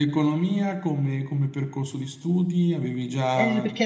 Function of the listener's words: taking over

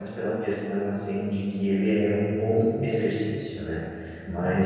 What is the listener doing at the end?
listening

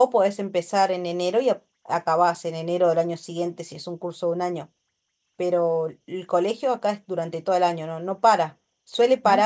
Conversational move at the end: listening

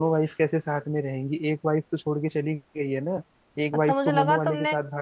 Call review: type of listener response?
taking over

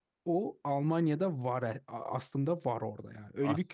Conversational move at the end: taking over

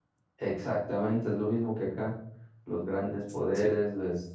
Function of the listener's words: listening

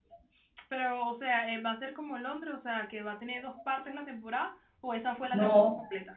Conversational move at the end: taking over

